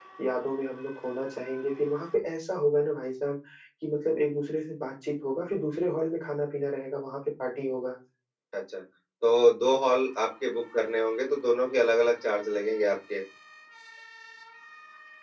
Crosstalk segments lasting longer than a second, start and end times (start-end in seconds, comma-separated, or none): none